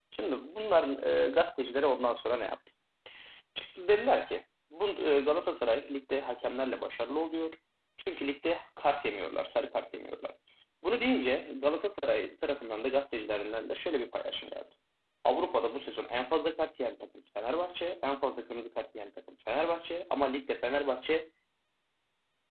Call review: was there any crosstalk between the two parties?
No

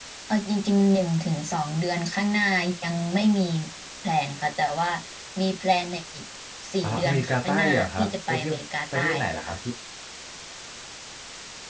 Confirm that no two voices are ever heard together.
No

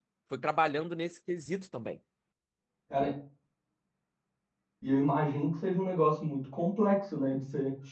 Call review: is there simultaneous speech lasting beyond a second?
No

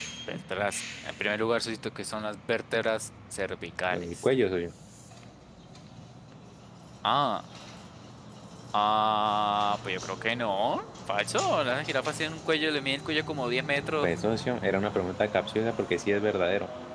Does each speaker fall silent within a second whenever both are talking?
Yes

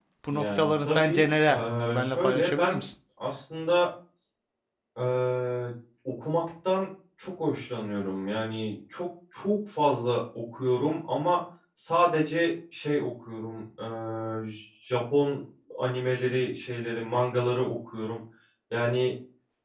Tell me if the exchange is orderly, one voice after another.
No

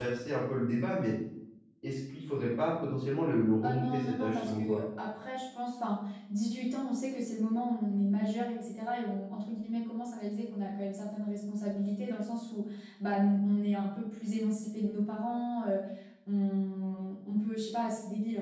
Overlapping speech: Yes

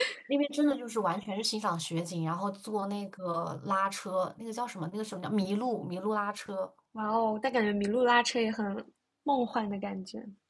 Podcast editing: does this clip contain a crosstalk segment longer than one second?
No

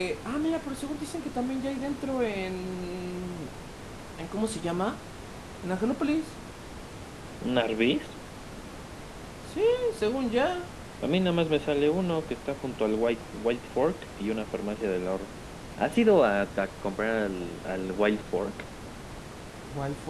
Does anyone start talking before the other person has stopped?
No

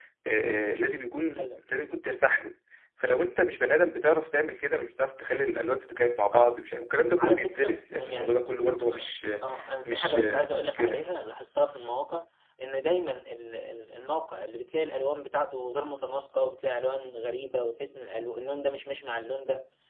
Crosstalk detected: Yes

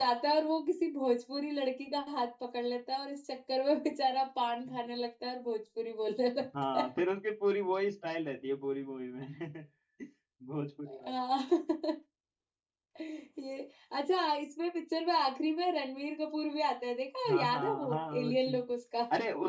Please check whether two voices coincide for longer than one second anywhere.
Yes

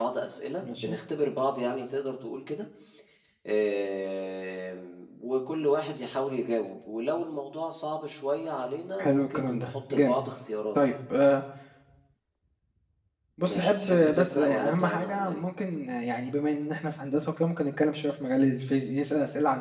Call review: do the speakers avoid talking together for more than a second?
No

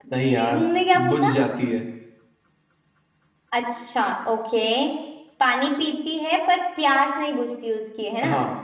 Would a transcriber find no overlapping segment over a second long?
Yes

